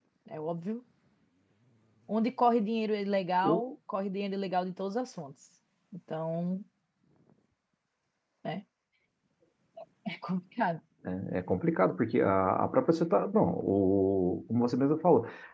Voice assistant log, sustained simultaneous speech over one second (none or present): none